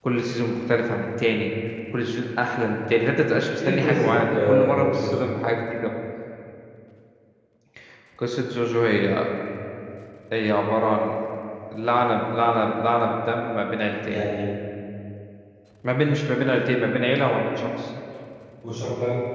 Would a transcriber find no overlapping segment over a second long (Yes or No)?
No